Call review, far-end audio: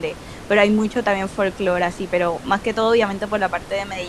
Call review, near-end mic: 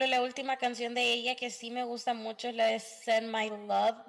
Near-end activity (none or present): present